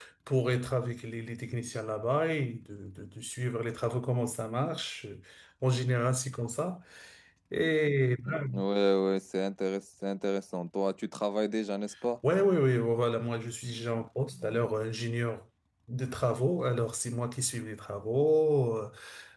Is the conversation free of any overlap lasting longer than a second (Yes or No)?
Yes